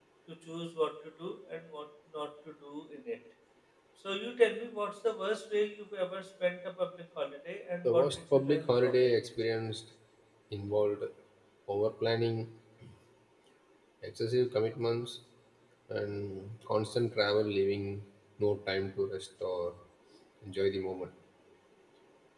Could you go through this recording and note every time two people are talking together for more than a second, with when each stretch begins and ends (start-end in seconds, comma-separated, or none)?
7.8-9.1